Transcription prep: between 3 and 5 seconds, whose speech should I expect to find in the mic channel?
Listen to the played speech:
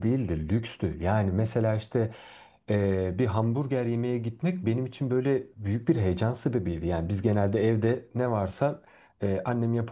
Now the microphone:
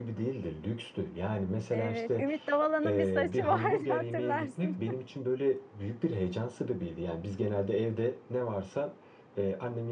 both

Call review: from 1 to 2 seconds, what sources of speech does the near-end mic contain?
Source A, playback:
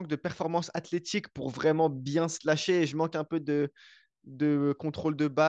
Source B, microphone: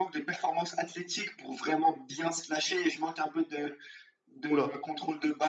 echo only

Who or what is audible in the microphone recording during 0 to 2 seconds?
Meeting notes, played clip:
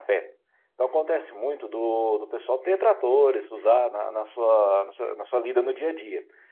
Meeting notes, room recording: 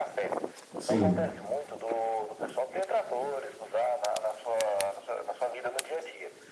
both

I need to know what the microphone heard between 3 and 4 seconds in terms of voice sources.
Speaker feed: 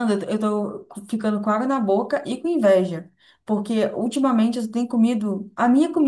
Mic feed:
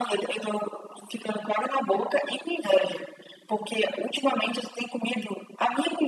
echo only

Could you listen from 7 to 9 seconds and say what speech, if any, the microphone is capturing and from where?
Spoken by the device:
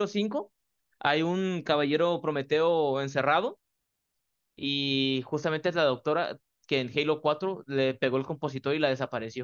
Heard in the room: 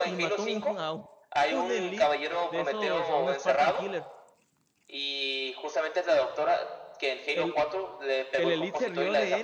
both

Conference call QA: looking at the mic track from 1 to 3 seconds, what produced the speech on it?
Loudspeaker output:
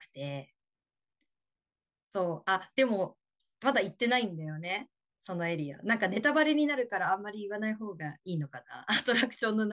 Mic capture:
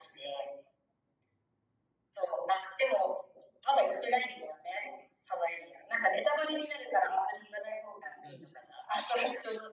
echo only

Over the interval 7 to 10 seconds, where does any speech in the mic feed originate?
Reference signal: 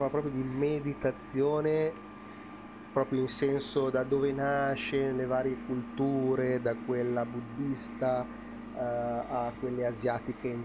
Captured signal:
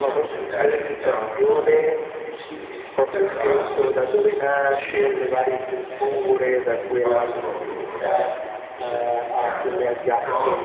both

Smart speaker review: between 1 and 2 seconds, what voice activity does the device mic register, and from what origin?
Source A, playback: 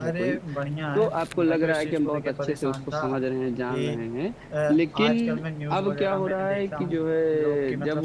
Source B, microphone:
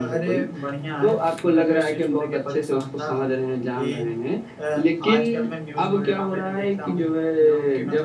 echo only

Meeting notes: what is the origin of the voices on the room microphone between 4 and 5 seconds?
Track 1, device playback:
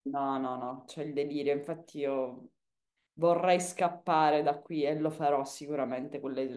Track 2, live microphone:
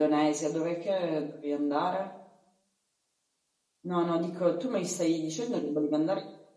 user only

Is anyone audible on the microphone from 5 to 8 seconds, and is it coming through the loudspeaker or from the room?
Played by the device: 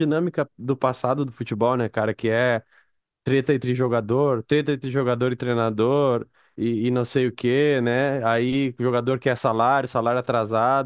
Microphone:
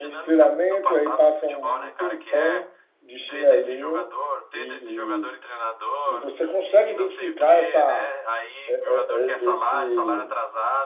both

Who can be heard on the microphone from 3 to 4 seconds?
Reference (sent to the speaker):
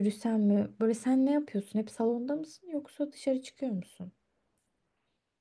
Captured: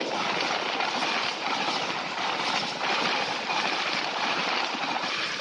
neither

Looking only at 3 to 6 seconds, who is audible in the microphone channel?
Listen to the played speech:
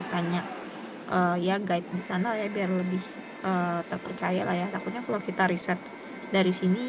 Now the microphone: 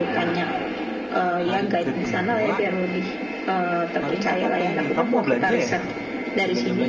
both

